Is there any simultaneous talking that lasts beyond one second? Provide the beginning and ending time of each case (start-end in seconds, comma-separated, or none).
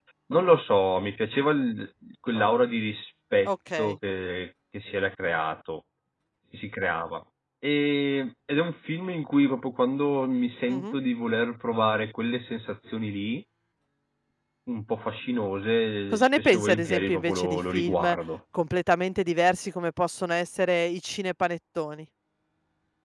16.1-18.1